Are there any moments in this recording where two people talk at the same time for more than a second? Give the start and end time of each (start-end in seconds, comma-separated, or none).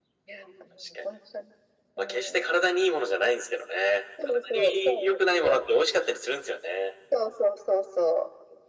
4.3-5.6